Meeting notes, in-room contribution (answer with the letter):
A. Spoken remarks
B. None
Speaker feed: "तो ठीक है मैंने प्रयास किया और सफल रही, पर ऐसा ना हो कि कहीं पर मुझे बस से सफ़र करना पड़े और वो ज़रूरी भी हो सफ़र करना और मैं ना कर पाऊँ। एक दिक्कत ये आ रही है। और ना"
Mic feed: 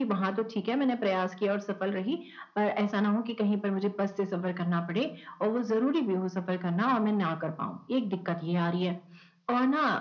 B